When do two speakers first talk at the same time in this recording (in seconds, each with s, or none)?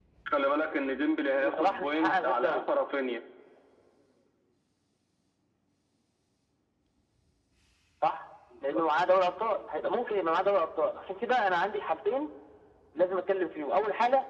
1.4 s